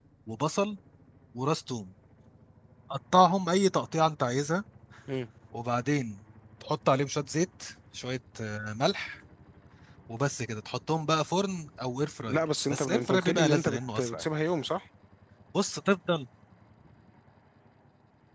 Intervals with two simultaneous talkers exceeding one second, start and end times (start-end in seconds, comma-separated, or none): 12.3-14.2